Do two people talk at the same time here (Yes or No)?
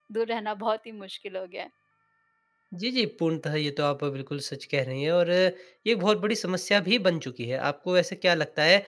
No